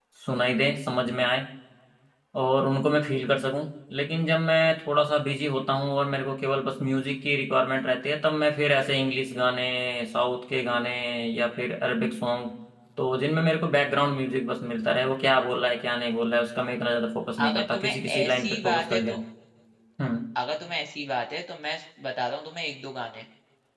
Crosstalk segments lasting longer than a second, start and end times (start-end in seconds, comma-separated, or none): 17.4-19.2